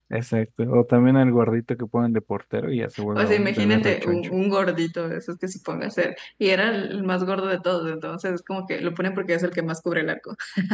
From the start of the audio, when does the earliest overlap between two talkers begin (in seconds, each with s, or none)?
2.9 s